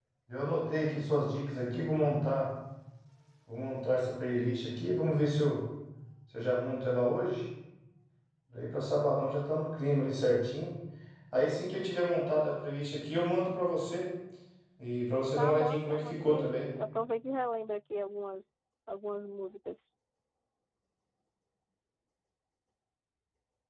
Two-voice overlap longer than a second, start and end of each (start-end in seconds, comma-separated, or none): 15.4-16.6